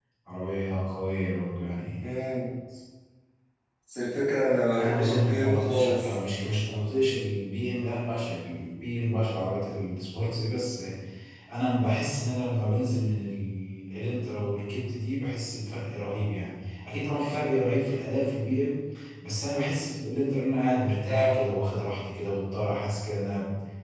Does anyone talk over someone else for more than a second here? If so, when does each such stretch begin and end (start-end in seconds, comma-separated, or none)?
4.8-6.1